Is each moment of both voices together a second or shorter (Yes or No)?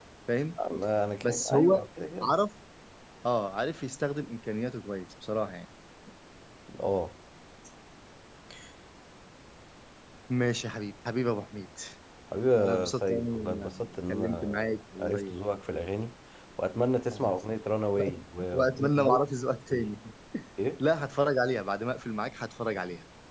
No